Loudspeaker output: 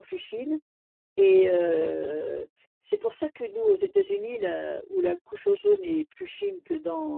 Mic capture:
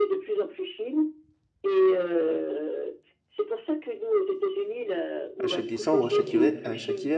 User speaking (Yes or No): Yes